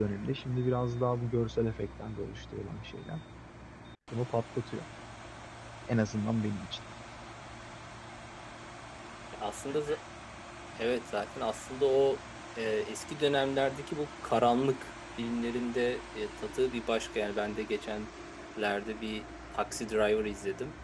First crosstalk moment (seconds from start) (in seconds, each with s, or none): none